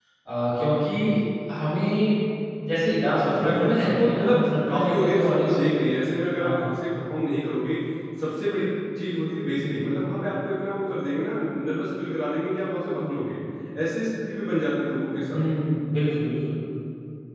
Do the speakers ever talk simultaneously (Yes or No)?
Yes